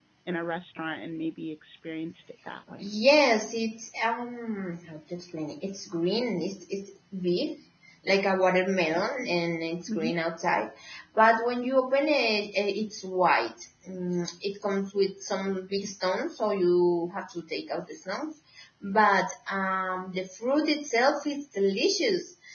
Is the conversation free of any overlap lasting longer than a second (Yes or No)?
Yes